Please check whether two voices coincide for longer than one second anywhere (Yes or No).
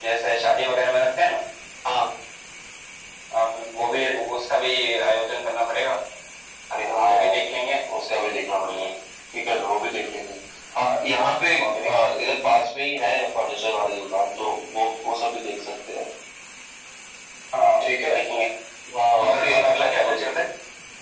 Yes